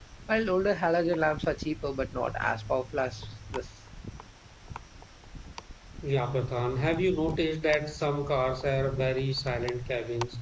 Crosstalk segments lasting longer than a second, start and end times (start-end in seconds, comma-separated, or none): none